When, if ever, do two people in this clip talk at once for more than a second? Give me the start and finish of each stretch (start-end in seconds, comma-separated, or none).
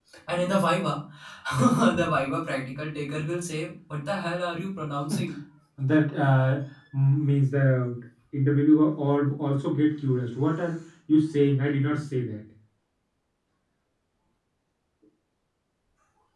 none